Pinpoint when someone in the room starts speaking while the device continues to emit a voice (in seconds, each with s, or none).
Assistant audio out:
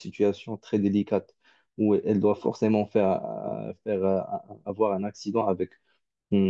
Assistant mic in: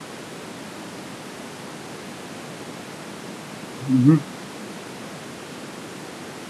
3.9 s